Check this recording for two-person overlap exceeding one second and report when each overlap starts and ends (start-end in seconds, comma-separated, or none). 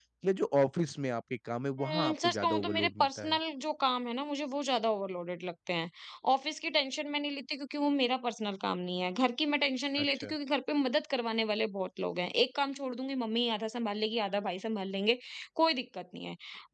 1.9-3.4